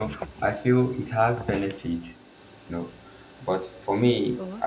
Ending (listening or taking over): listening